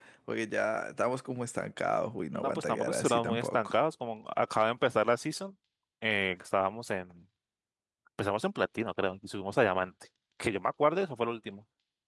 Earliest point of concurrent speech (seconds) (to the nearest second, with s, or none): 2 s